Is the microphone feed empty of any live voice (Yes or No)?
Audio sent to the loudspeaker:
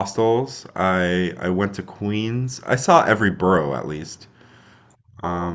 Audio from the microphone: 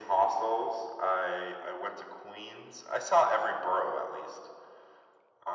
Yes